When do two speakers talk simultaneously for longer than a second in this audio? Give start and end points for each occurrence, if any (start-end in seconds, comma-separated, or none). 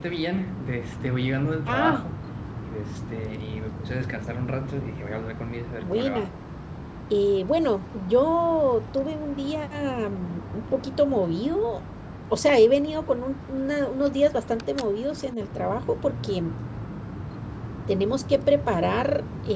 none